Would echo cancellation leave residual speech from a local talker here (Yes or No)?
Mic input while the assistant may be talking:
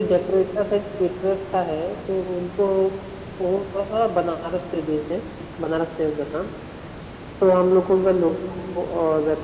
No